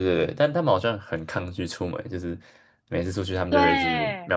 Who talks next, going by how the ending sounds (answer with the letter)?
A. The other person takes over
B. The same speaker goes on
B